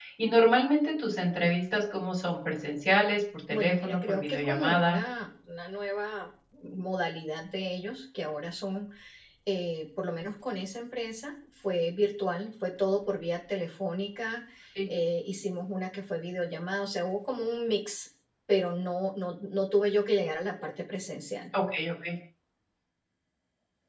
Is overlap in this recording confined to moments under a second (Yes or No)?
No